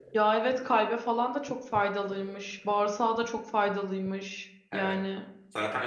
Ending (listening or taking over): taking over